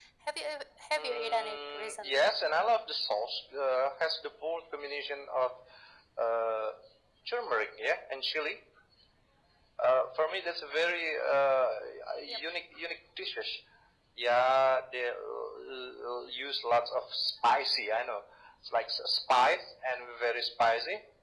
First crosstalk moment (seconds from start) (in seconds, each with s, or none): 1.0 s